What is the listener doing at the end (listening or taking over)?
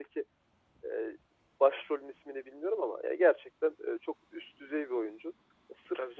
listening